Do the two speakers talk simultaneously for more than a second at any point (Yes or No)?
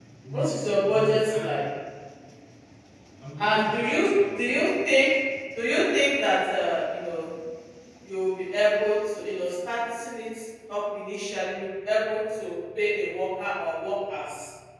Yes